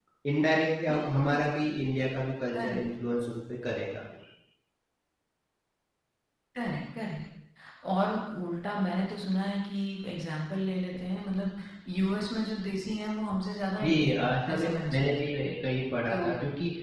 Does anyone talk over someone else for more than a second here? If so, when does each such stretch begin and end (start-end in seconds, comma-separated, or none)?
13.8-15.3